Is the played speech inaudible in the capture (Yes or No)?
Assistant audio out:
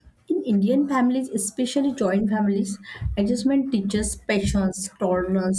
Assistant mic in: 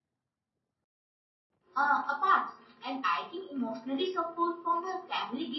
Yes